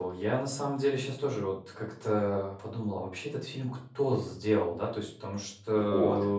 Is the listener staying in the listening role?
Yes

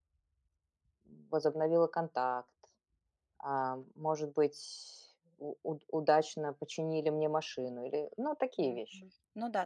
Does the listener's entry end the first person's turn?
Yes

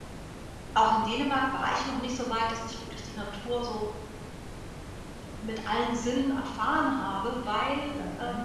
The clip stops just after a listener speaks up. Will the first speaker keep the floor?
Yes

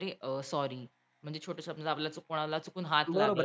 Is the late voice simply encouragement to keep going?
No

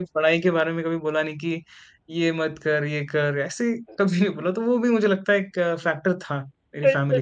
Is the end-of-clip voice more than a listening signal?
Yes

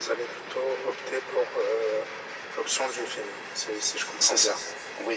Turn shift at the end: Yes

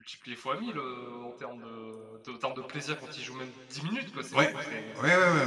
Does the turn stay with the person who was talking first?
No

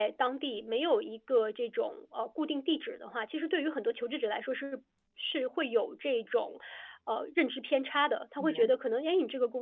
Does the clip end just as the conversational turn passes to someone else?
No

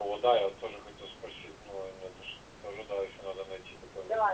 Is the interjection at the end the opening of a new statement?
Yes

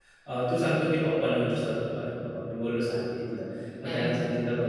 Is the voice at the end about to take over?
No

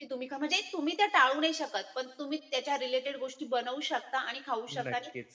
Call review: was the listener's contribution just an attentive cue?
Yes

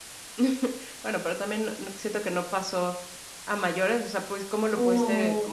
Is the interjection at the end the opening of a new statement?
No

